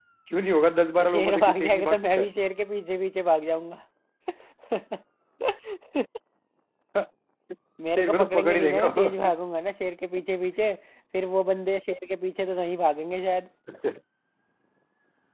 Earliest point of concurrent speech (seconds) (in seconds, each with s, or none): 1.0 s